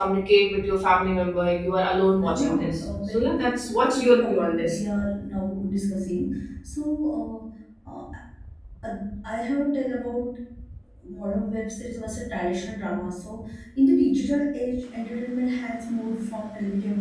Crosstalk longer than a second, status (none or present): present